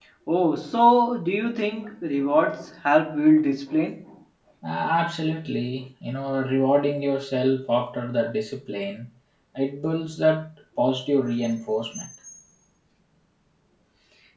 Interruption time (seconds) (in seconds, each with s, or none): none